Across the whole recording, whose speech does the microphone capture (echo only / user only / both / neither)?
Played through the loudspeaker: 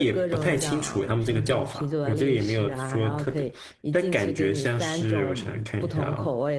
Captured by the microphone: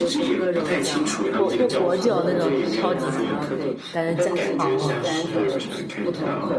both